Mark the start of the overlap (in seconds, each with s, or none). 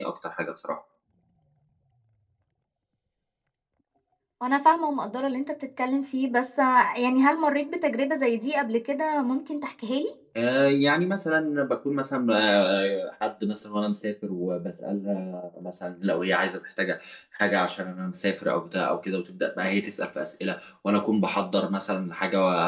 none